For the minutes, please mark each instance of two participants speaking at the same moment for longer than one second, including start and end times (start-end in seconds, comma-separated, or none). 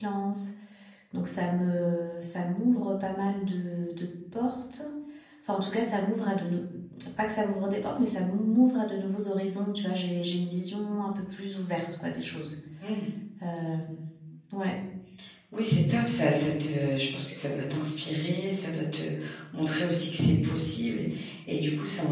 none